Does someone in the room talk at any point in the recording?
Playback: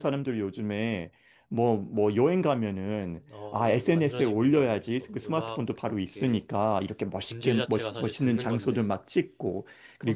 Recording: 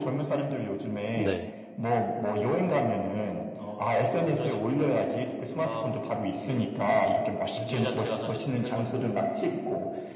Yes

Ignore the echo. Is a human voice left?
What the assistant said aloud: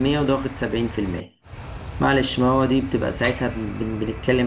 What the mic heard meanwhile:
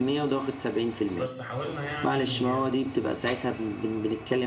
Yes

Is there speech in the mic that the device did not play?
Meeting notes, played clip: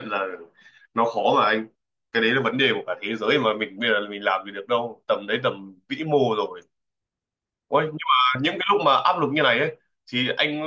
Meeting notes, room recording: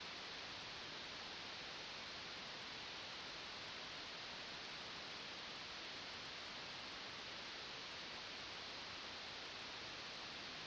No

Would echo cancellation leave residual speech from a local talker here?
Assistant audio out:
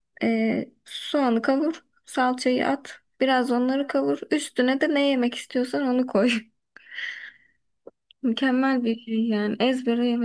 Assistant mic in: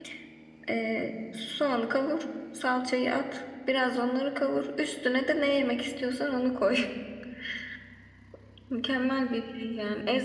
No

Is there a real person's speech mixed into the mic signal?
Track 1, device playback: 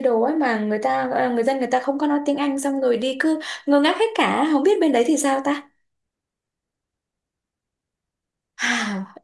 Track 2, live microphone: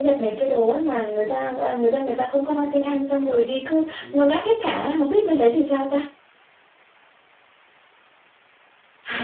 Yes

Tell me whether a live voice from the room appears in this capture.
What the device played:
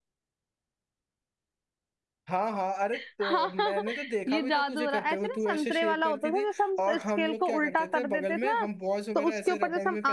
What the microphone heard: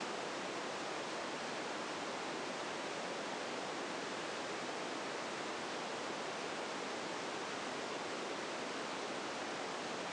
No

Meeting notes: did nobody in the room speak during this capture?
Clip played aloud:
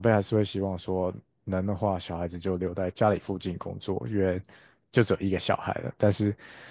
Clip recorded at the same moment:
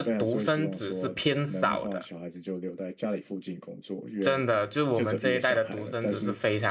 No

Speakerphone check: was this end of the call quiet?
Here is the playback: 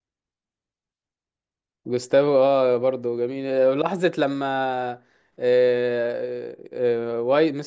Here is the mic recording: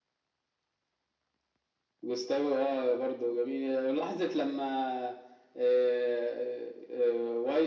Yes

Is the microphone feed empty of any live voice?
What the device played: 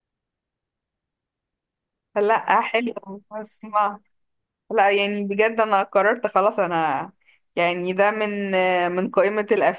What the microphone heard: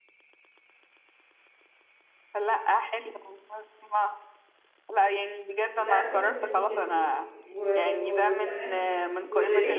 No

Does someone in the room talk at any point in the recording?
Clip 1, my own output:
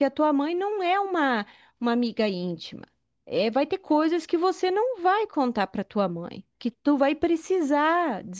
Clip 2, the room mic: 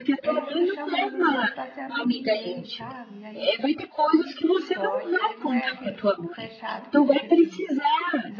Yes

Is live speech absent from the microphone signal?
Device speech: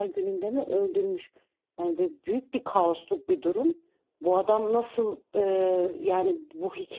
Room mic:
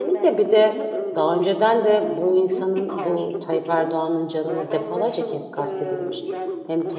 No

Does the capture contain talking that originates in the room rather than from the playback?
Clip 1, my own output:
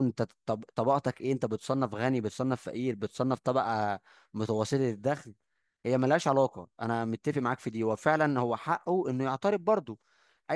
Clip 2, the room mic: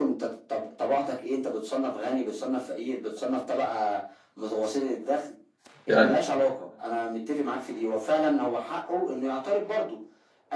Yes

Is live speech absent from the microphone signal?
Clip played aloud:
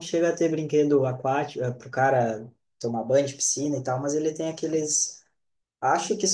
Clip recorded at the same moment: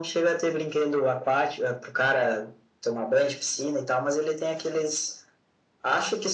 Yes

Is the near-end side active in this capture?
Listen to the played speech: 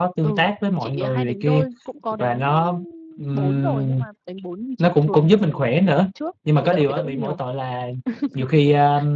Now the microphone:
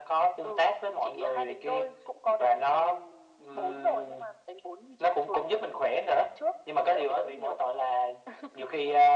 No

